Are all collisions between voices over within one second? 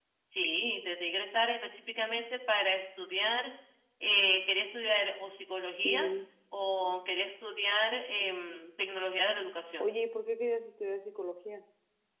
Yes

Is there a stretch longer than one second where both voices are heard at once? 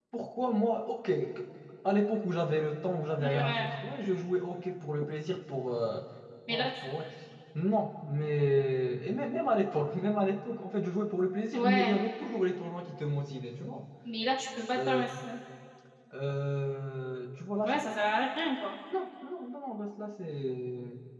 No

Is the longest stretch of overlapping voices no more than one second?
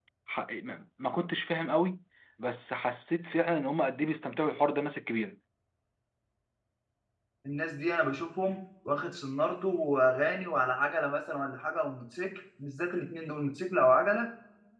Yes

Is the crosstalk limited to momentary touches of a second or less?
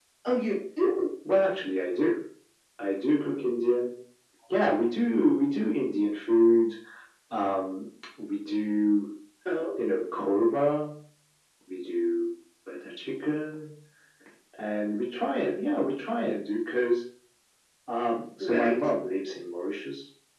Yes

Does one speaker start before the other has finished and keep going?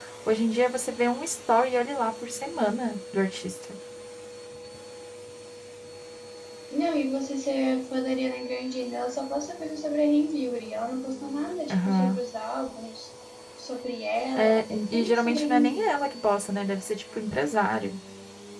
Yes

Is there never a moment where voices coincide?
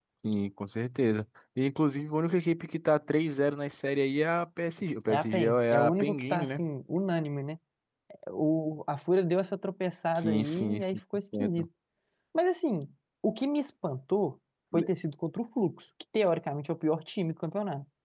No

